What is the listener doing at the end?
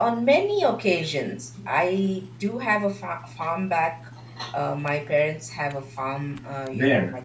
listening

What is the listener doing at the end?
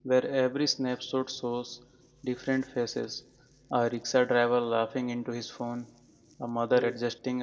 listening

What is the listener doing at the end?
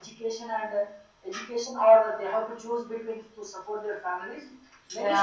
listening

